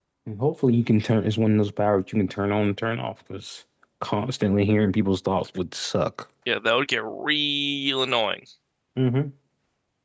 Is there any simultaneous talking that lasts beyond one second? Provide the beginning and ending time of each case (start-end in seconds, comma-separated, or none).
none